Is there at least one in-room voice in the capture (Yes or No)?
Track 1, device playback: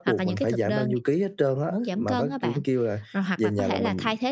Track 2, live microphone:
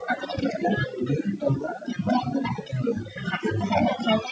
No